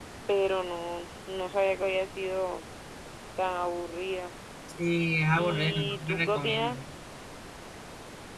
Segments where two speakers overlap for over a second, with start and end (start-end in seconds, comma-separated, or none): 5.4-6.8